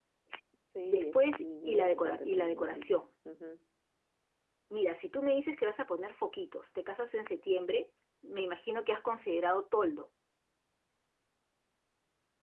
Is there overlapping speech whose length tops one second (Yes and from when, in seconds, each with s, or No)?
Yes, from 0.9 s